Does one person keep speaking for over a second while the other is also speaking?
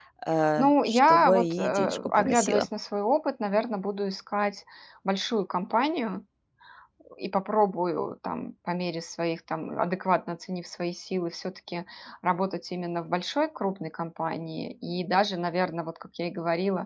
Yes, from 0.6 s

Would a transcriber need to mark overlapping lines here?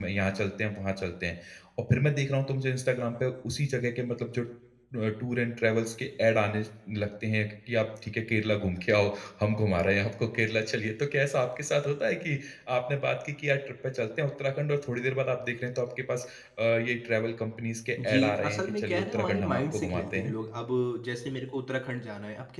Yes, from 18.0 s

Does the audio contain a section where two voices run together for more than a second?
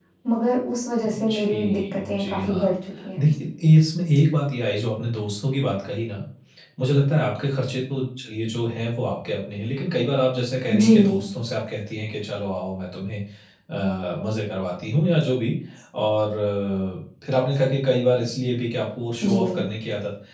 Yes, from 1.0 s

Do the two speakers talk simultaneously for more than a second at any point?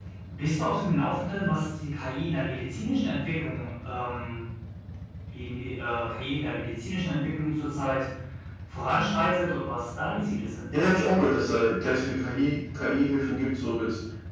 No

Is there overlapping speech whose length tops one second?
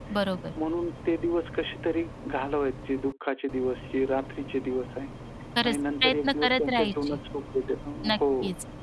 Yes, from 5.6 s

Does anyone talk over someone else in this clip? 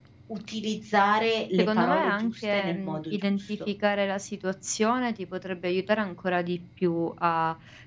Yes, from 1.6 s

